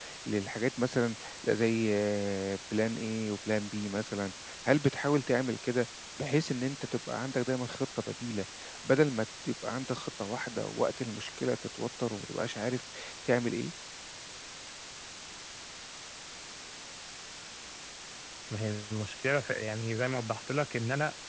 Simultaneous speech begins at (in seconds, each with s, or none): none